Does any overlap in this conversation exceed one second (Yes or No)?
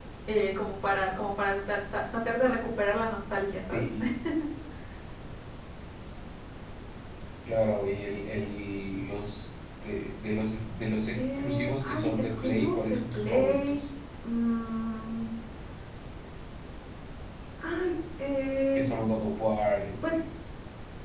Yes